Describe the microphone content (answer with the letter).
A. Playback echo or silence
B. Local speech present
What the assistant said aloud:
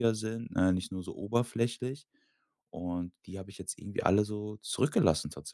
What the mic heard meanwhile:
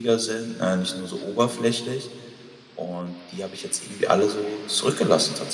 A